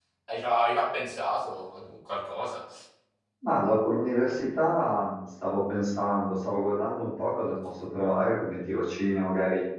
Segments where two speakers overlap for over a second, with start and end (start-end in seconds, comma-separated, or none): none